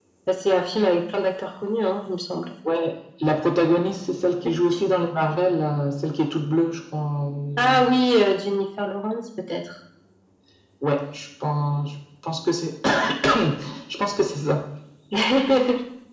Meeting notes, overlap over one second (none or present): none